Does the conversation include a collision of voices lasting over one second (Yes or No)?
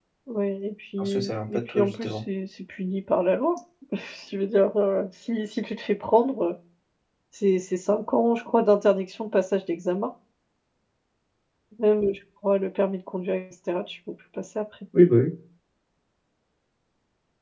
Yes